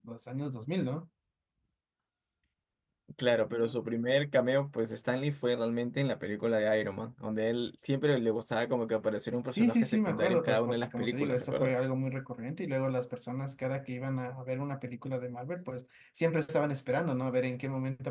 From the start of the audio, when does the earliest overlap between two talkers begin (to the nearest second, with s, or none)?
10 s